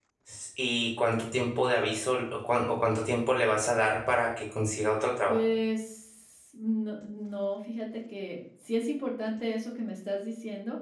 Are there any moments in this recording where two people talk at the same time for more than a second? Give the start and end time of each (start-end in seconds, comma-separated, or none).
none